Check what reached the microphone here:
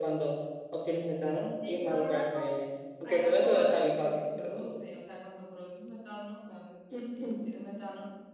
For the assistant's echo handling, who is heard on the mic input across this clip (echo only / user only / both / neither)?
both